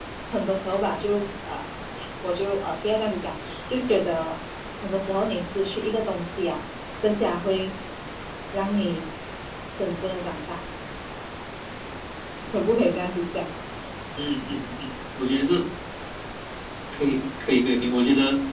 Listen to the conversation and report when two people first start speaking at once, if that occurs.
none

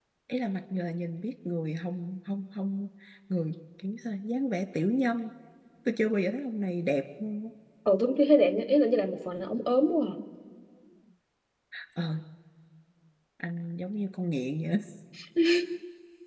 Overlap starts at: none

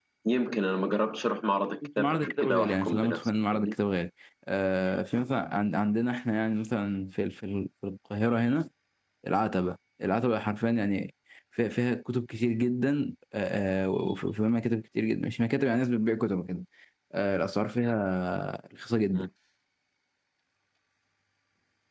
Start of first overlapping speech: 1.8 s

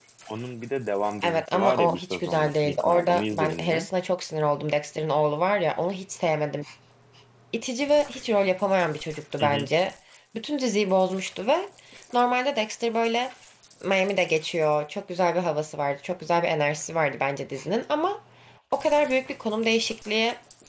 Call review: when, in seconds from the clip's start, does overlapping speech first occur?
1.2 s

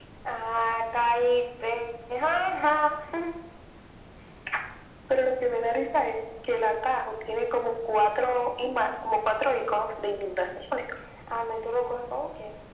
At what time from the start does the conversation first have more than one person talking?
none

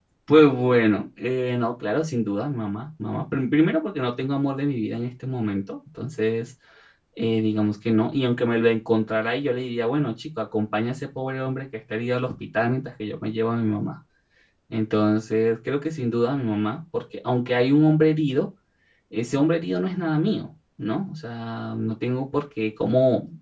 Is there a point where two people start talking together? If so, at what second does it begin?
none

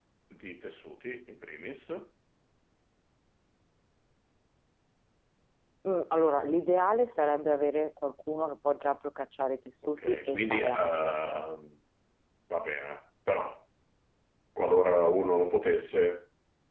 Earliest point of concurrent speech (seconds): 10.0 s

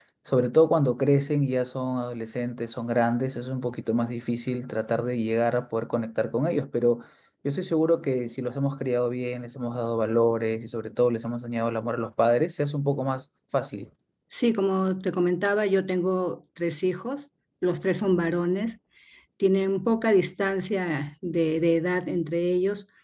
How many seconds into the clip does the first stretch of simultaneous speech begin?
none

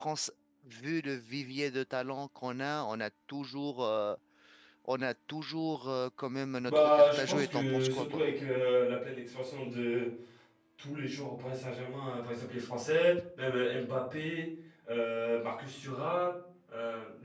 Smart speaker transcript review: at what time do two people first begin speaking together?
6.7 s

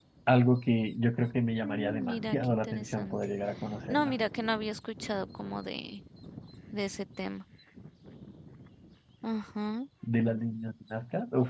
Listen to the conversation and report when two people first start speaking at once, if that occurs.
1.6 s

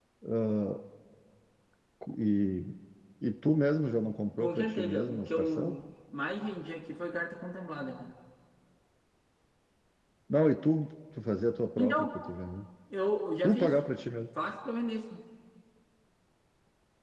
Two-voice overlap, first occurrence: 4.4 s

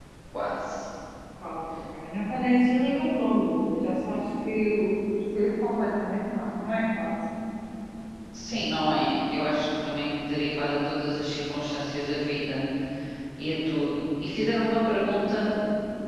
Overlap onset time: none

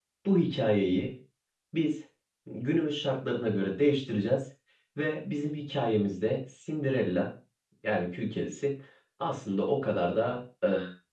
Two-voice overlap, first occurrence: none

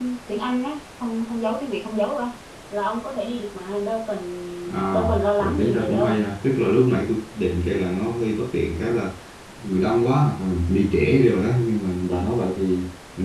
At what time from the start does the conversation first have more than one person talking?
4.9 s

